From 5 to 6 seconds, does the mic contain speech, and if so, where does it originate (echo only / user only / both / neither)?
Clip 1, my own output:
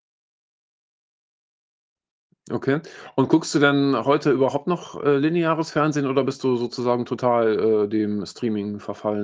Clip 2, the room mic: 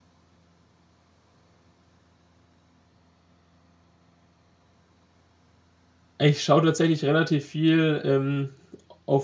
neither